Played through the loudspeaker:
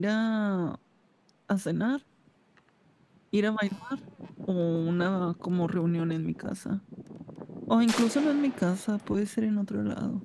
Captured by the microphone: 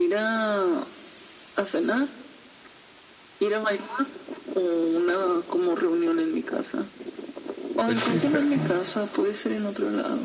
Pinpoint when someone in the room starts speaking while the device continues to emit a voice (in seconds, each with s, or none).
7.8 s